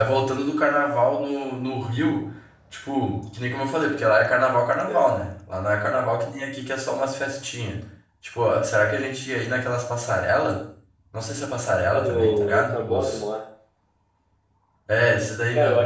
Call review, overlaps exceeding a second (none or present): present